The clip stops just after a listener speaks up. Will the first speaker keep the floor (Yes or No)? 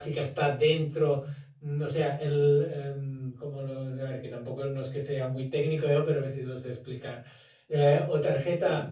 Yes